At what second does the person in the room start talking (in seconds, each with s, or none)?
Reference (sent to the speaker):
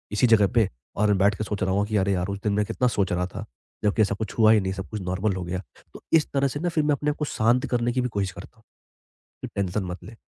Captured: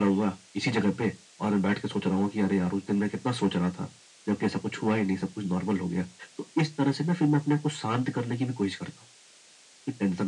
none